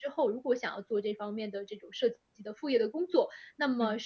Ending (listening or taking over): listening